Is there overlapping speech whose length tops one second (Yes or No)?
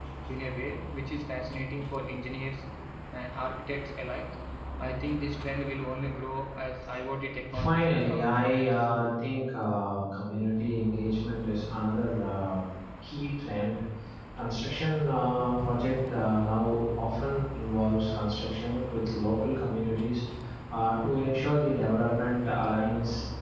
Yes